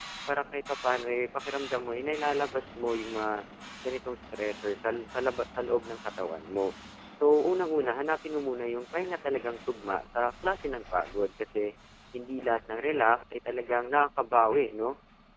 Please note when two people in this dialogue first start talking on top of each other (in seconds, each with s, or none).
none